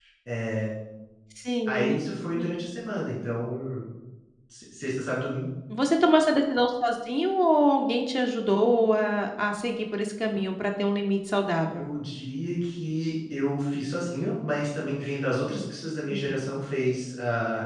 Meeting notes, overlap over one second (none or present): none